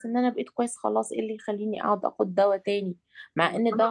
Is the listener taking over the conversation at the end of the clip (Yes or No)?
No